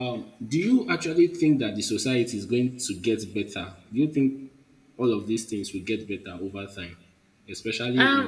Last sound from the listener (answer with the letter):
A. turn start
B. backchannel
A